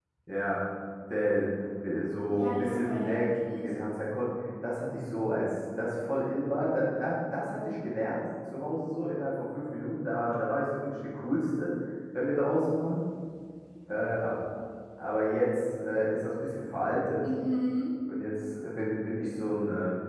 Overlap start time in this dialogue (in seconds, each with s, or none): 2.3 s